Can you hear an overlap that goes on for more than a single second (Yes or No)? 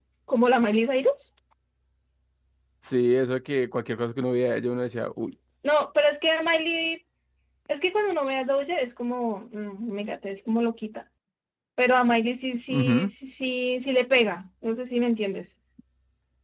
No